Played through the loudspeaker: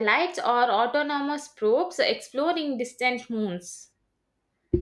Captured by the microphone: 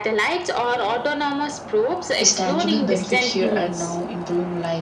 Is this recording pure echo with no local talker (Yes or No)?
No